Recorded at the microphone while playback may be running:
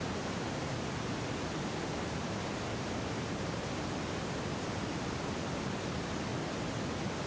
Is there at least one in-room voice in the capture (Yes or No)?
No